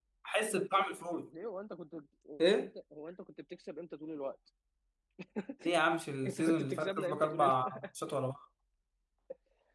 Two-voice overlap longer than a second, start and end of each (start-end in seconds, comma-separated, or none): 6.3-7.8